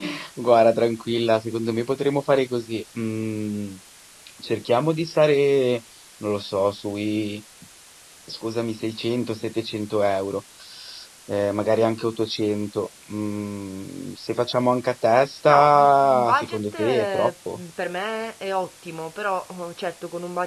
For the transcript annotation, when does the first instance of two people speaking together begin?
15.5 s

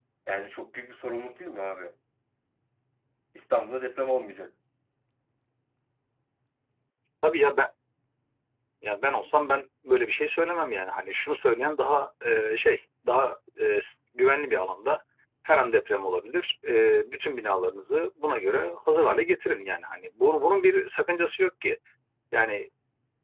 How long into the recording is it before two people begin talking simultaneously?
none

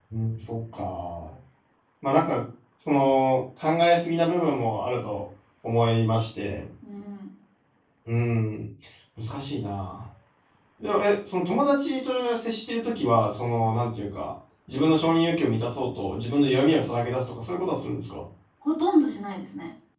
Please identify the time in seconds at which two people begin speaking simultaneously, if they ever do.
none

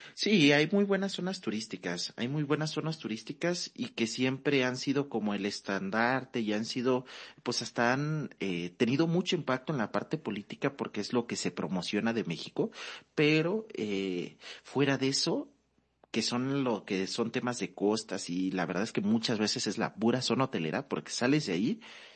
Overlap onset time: none

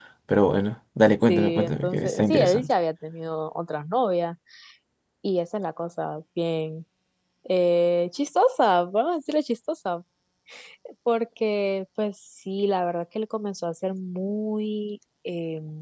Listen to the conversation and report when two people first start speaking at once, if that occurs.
1.3 s

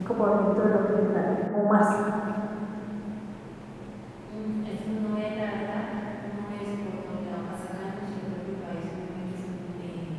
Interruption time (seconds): none

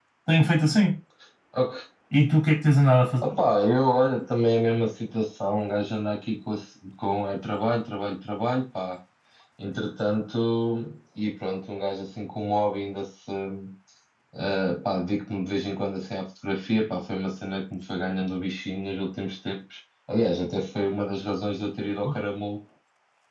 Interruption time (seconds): none

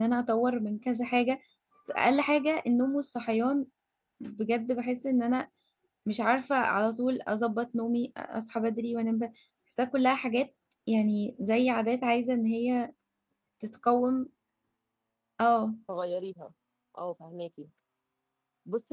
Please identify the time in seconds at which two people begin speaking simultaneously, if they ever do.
none

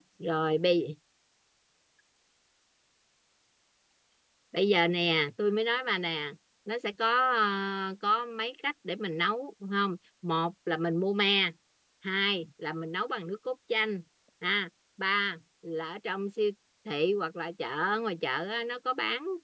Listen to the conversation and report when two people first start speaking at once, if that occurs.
none

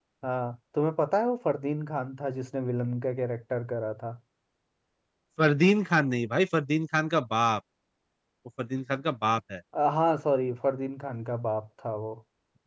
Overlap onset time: none

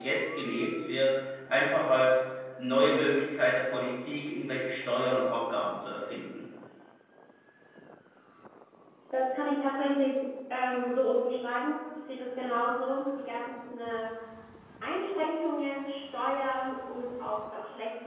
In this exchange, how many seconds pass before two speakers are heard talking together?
none

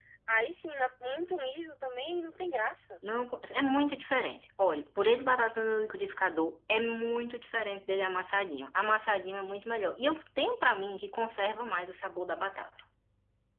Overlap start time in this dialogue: none

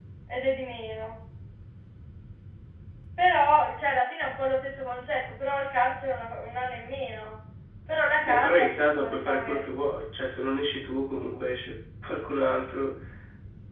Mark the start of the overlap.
8.2 s

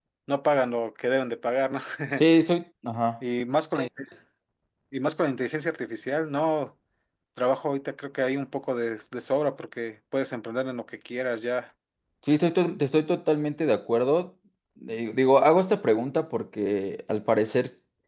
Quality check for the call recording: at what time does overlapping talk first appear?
none

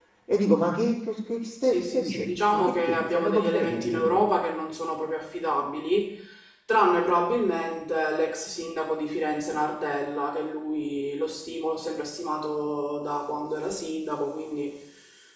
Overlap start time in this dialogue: 1.6 s

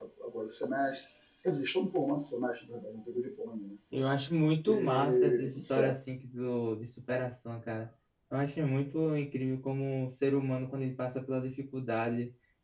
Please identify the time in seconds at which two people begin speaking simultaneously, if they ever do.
4.7 s

